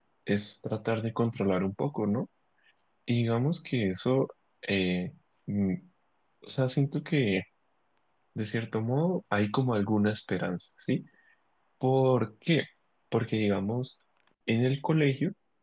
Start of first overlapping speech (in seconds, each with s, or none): none